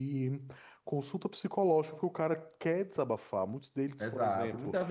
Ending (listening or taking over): taking over